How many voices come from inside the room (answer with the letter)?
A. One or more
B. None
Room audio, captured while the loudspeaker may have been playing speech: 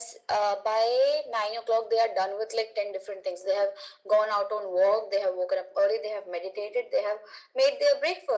B